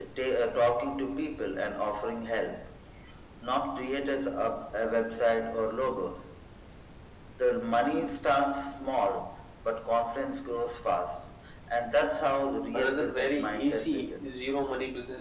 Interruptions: present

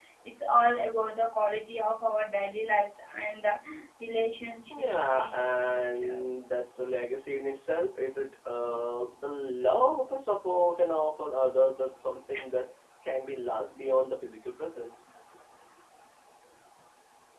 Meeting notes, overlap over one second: present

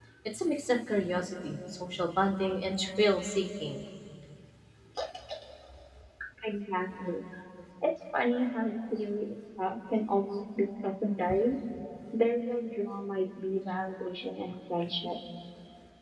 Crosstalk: none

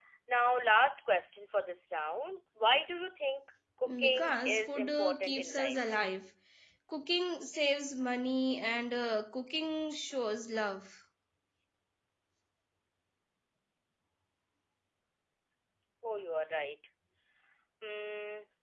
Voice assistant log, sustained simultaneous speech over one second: present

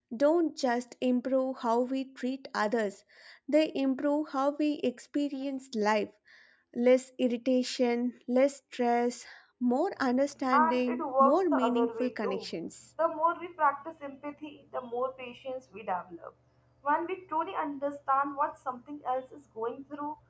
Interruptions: present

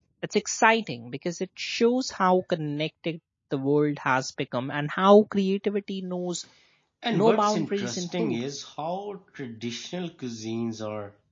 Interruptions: present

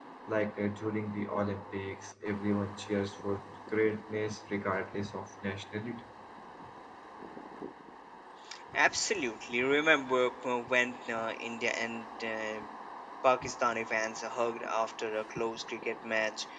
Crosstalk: none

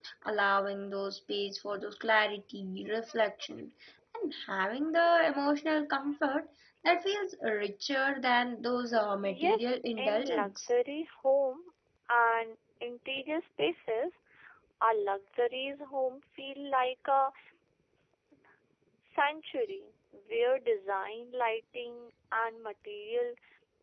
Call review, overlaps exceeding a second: present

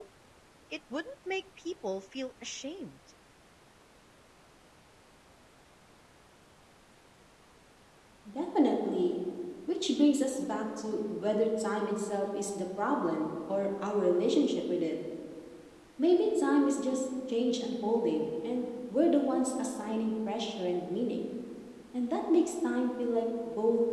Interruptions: none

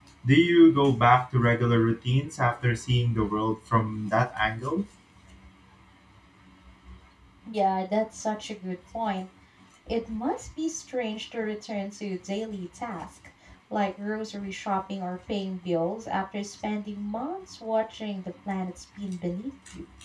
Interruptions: none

